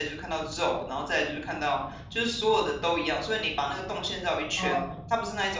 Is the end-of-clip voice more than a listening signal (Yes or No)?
No